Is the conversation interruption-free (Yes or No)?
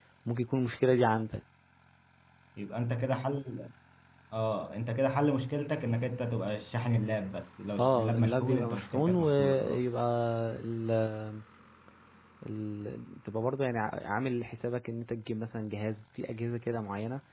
No